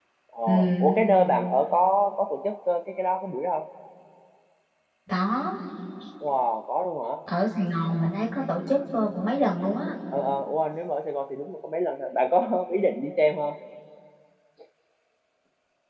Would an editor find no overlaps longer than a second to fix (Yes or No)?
Yes